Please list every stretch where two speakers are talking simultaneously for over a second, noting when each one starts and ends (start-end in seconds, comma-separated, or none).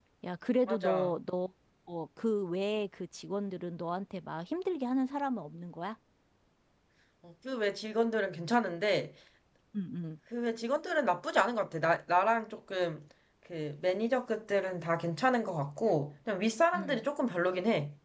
none